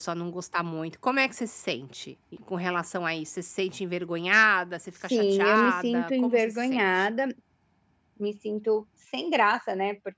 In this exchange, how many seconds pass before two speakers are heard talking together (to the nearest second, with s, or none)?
5 s